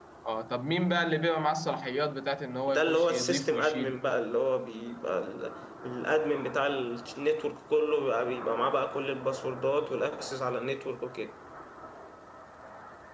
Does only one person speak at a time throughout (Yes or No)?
No